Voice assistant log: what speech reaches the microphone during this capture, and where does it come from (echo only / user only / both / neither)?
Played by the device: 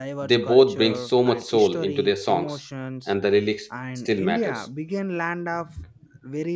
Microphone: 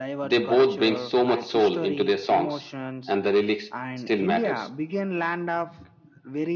echo only